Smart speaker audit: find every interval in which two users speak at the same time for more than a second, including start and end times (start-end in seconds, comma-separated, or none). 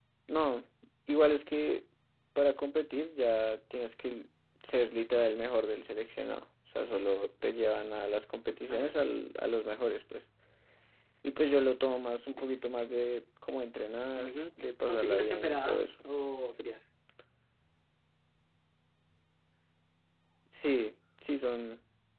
14.2-15.8